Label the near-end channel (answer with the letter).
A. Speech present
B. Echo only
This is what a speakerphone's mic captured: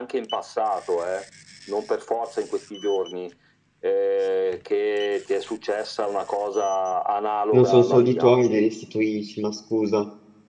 A